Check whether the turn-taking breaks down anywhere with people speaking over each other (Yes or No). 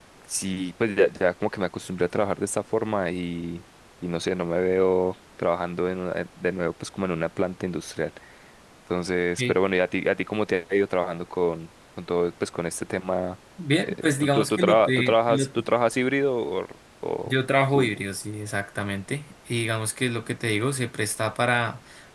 Yes